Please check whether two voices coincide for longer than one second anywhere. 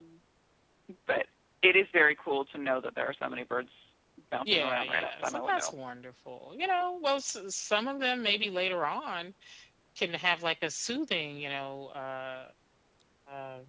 Yes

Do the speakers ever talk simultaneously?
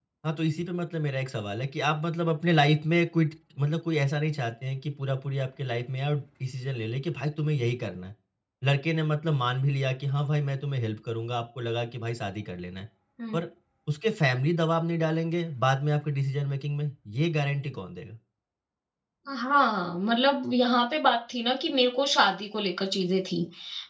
No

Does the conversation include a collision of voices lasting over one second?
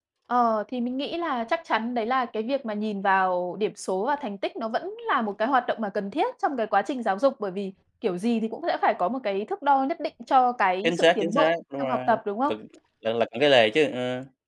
Yes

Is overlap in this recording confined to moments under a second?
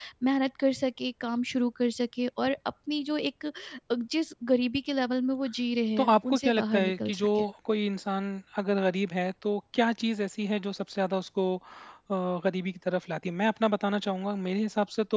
No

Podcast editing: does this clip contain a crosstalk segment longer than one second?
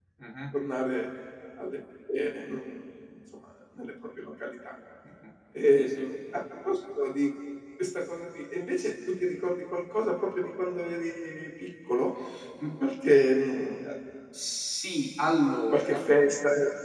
No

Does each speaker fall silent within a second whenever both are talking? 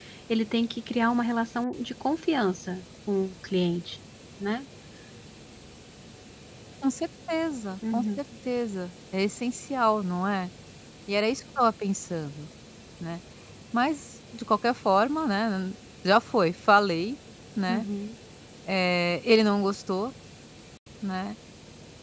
Yes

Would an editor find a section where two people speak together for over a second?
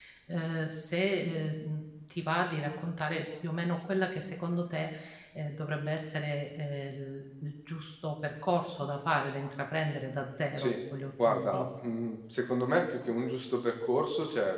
No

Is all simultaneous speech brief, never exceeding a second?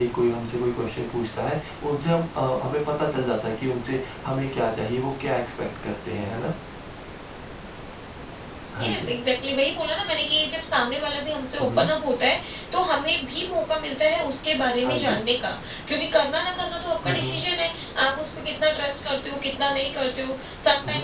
Yes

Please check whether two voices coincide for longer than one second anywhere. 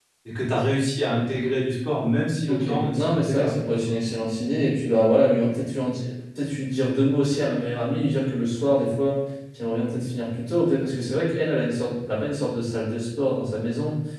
Yes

